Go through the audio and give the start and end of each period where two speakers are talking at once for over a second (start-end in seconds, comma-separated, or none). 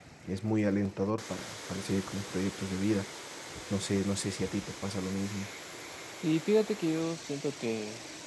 none